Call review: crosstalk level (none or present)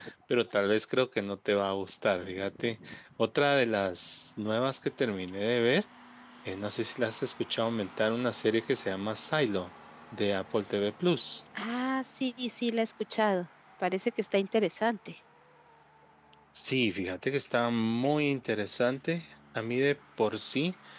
none